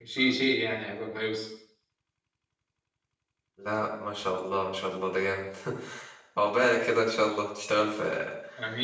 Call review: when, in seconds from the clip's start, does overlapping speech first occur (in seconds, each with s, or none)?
none